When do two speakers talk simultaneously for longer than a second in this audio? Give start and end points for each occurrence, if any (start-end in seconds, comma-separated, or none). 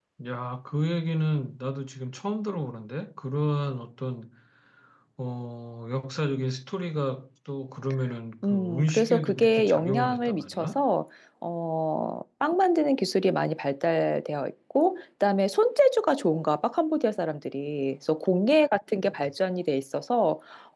8.4-10.8